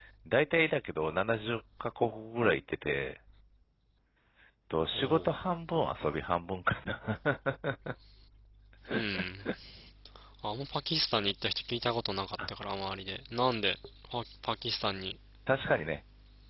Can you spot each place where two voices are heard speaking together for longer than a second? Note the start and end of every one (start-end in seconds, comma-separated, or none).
none